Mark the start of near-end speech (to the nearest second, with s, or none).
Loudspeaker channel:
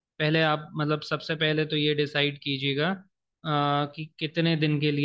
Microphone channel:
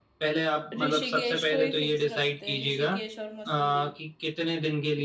1 s